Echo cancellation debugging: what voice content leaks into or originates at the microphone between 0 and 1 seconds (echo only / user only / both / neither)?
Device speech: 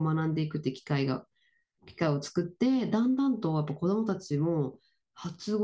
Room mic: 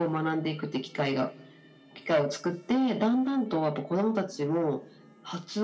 echo only